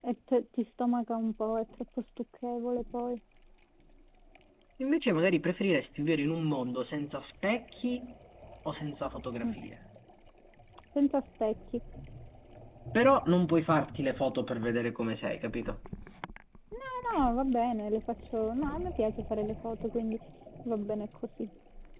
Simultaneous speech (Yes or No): No